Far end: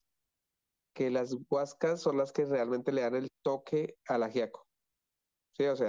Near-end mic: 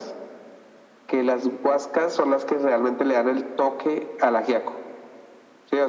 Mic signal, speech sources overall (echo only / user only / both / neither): echo only